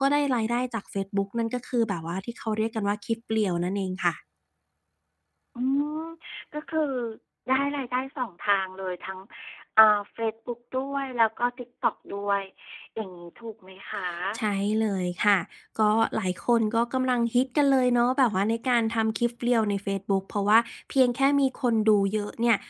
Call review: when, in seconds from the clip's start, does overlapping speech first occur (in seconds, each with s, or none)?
none